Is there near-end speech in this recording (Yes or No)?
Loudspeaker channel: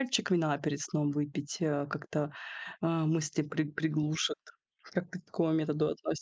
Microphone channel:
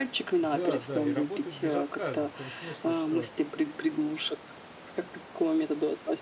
Yes